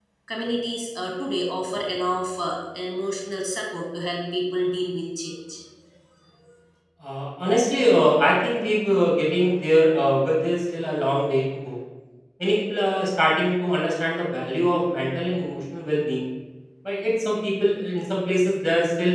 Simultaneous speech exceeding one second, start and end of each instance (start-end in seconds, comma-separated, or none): none